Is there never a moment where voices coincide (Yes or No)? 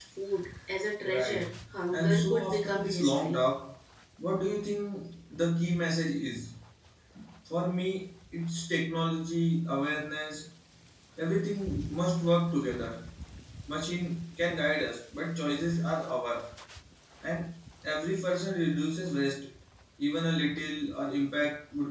No